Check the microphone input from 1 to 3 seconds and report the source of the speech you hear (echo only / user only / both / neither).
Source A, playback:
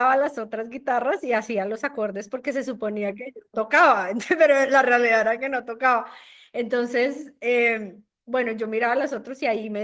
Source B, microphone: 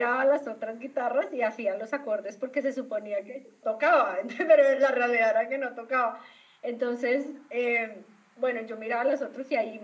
echo only